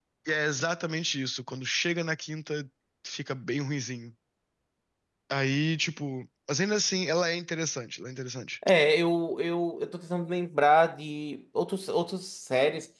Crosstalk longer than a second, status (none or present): none